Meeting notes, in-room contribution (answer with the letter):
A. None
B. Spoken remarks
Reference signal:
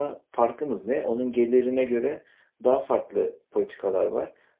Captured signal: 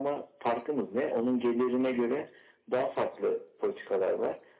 A